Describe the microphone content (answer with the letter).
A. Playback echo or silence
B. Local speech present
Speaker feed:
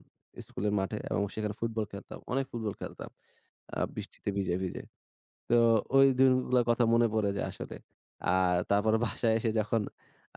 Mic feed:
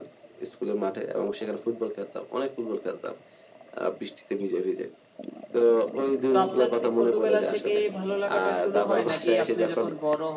B